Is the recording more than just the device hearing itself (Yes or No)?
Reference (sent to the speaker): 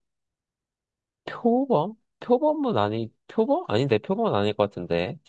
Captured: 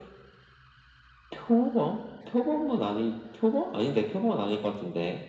No